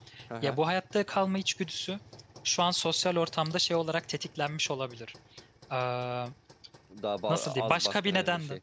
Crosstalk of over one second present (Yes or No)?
Yes